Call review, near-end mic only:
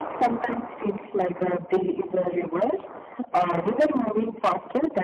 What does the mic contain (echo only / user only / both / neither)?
echo only